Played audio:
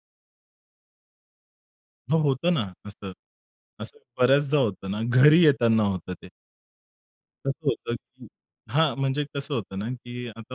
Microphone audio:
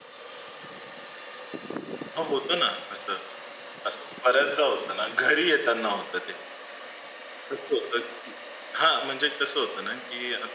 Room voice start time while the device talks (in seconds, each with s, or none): none